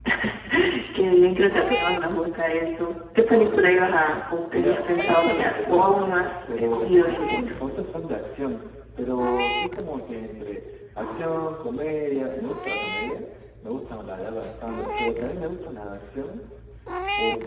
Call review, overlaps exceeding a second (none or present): present